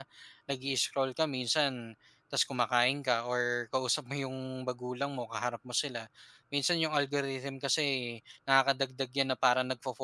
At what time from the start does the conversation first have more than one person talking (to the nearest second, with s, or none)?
none